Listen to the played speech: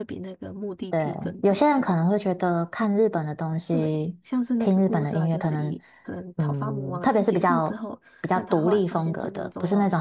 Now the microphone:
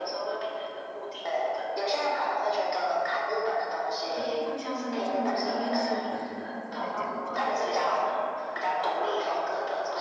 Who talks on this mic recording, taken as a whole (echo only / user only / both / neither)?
both